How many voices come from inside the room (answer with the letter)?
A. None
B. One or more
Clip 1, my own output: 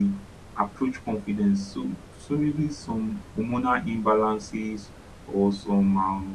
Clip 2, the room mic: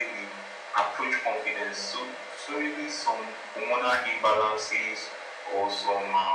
A